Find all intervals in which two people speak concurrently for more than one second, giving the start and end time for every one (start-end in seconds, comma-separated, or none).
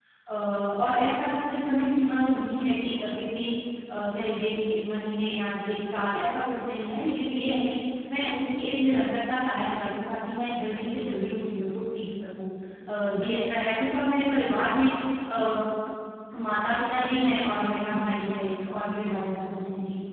none